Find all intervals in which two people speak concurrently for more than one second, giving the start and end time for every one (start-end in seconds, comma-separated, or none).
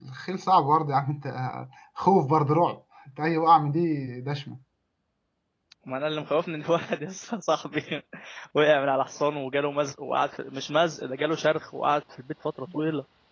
none